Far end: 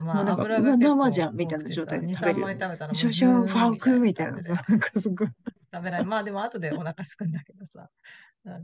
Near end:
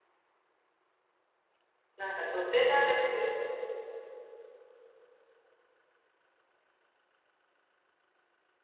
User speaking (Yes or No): Yes